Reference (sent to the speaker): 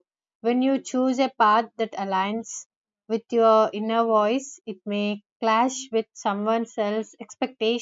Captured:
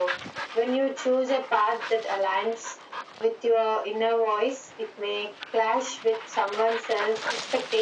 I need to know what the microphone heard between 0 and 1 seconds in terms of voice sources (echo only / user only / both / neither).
echo only